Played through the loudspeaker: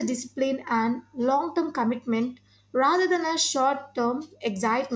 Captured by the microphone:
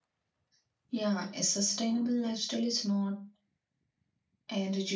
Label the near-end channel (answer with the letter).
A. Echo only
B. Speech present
B